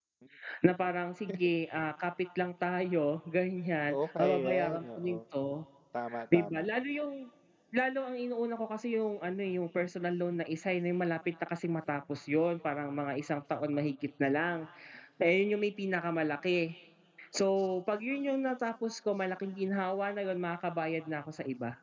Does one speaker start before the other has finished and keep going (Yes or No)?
Yes